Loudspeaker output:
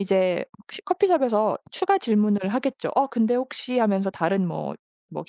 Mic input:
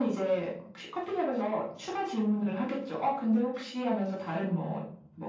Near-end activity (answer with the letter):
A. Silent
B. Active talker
A